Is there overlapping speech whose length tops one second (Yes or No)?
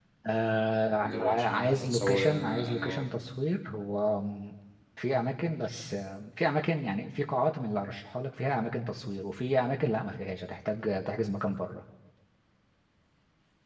Yes